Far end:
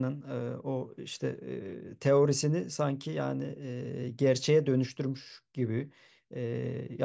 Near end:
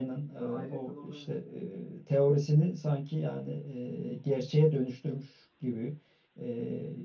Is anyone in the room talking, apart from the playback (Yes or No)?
Yes